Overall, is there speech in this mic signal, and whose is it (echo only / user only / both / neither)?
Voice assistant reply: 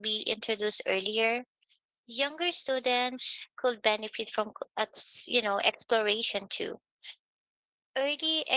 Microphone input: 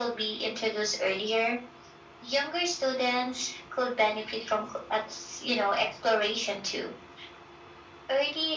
echo only